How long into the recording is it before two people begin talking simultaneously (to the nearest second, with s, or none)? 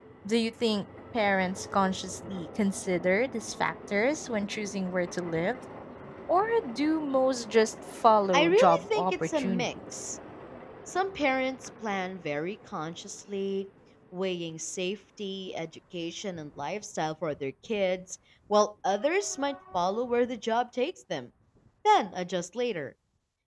8 s